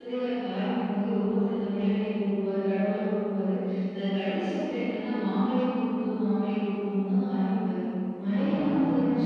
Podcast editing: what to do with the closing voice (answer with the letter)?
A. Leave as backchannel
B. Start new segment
A